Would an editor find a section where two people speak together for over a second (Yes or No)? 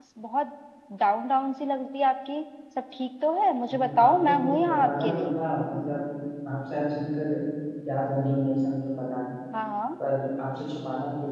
Yes